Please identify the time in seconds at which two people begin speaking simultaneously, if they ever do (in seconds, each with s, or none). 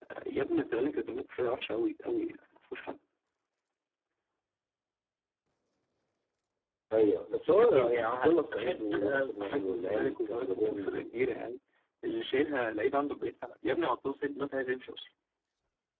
7.5 s